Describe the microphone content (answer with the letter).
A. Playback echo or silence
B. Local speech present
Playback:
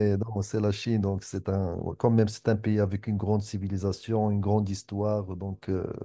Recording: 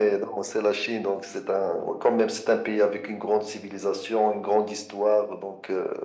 A